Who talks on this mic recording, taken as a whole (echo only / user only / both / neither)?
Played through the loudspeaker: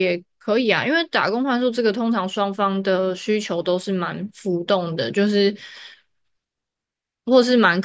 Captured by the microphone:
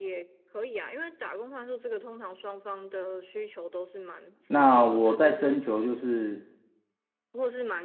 both